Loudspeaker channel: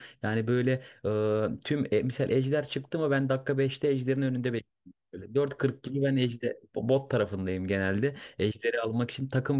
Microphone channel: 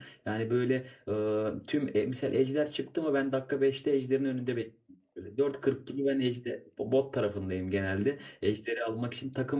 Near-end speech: none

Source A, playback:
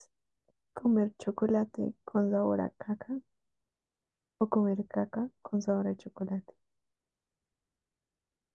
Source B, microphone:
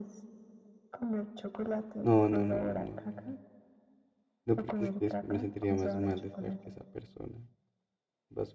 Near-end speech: present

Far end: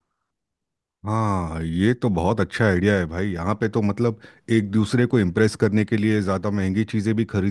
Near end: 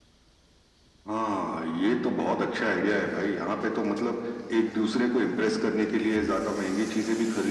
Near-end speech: none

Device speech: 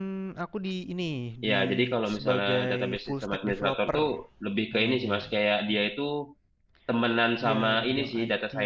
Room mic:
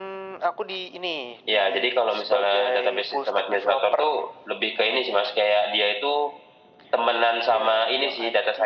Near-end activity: none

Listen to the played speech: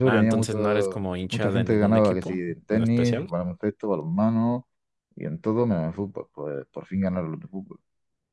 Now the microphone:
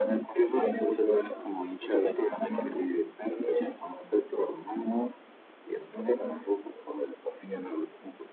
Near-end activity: none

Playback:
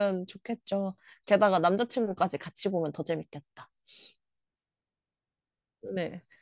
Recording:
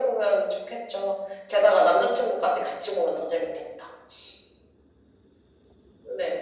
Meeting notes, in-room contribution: none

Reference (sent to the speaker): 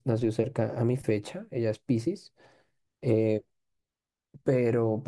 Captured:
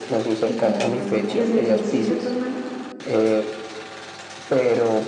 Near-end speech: present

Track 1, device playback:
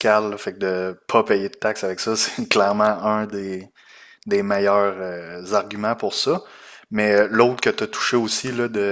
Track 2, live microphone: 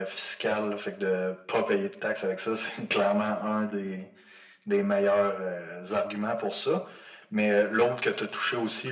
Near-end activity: none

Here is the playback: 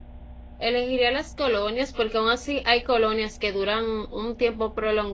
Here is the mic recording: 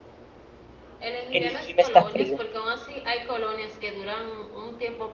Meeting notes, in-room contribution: present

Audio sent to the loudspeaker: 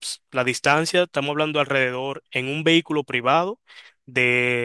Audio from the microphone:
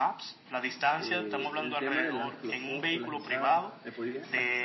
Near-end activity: present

